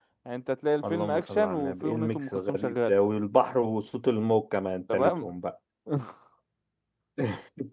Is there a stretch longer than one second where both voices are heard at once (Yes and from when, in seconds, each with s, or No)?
Yes, from 0.9 s